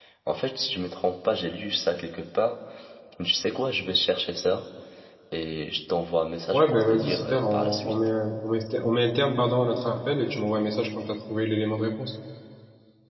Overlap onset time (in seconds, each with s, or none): 6.5 s